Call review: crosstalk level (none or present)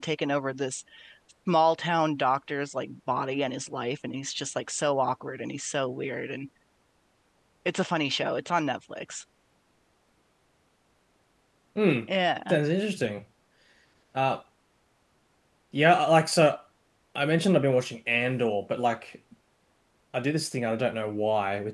none